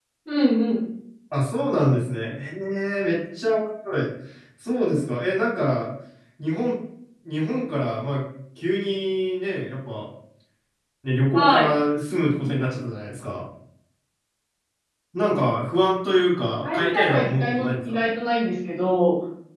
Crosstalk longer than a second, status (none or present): present